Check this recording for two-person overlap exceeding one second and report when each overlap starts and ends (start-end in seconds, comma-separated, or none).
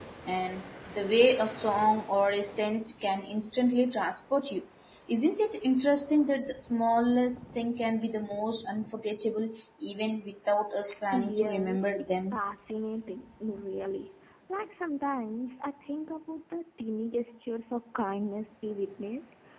11.1-12.4